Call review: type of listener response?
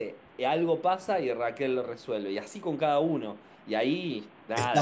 taking over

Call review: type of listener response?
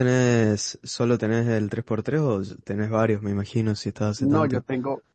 taking over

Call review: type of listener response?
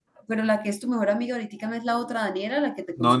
taking over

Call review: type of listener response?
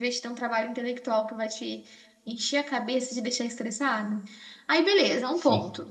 listening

